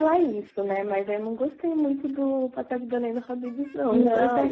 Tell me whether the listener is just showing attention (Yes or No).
No